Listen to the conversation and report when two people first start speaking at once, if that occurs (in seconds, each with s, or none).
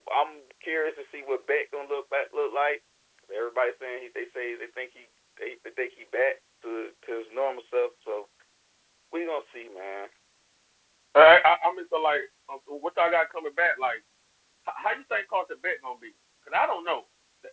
none